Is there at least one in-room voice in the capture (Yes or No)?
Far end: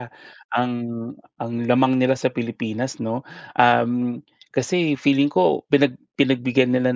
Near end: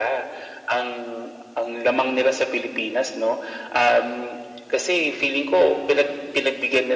No